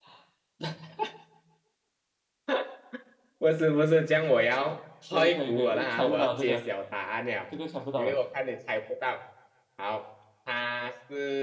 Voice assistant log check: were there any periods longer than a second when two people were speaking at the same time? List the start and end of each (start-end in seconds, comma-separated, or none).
5.1-6.7